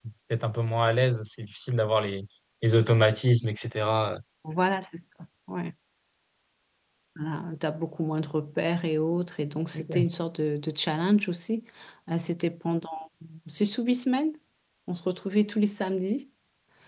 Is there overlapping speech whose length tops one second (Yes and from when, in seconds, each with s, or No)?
No